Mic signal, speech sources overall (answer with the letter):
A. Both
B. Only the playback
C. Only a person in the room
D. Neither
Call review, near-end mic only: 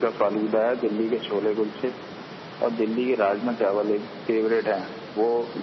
B